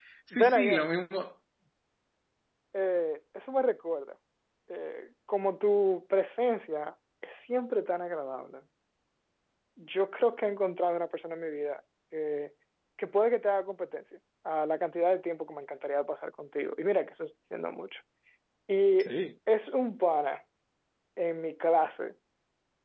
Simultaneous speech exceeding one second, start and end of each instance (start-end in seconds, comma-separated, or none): none